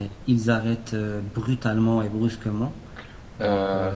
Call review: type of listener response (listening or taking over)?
taking over